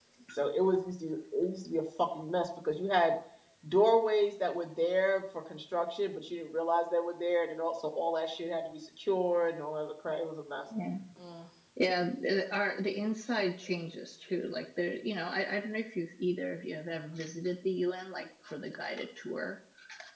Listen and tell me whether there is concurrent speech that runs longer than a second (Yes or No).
No